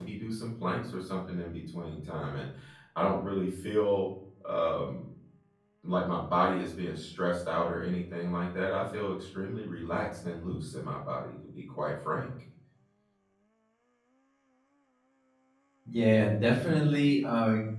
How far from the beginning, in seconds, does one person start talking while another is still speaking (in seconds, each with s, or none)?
none